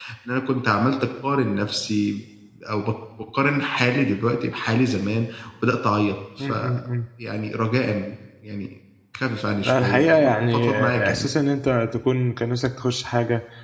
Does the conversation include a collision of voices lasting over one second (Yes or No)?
Yes